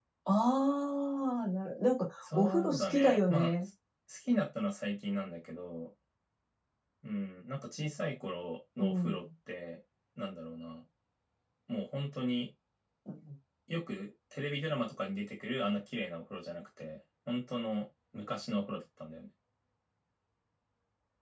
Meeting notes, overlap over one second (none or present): present